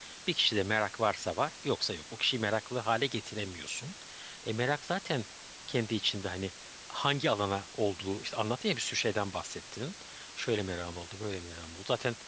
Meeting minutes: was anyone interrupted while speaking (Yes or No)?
No